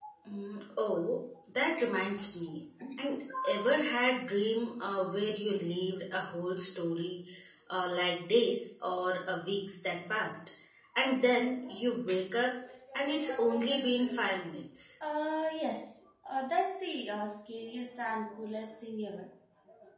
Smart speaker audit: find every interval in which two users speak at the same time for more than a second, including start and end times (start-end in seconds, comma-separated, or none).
12.9-14.4